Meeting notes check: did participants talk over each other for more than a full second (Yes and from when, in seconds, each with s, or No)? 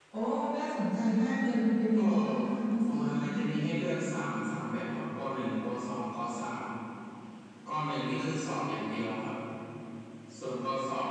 No